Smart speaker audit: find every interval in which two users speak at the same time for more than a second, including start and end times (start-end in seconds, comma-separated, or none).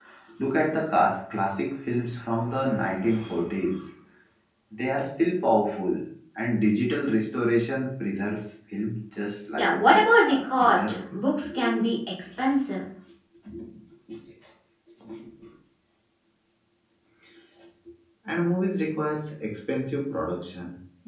9.6-10.8